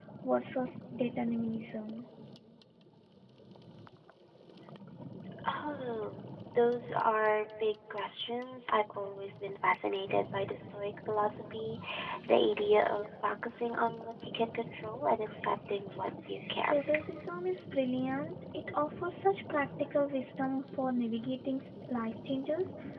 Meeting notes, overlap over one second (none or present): none